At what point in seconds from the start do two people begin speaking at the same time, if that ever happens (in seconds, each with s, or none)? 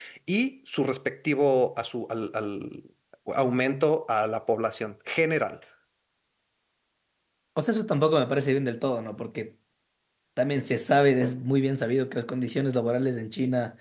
none